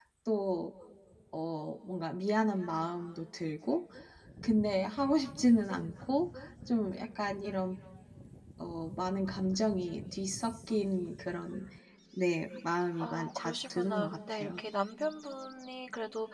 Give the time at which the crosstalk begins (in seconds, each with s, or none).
13.0 s